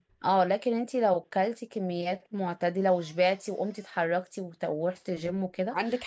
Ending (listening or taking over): taking over